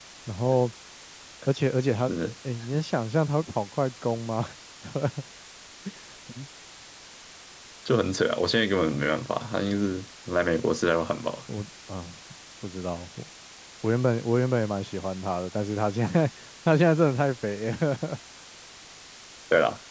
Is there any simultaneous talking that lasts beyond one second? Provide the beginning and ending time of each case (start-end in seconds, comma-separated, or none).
none